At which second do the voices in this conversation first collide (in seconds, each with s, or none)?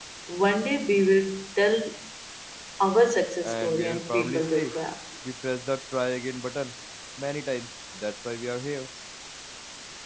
3.4 s